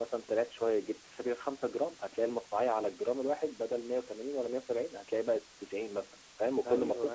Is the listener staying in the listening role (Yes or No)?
No